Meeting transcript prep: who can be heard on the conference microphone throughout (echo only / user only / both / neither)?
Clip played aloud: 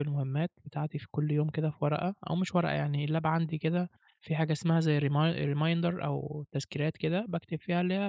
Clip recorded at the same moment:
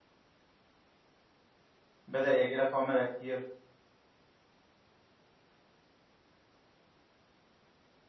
user only